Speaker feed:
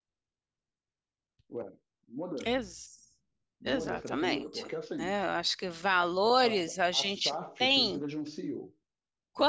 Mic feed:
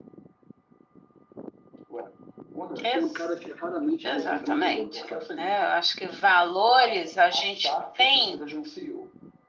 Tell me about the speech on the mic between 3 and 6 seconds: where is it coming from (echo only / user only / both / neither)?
both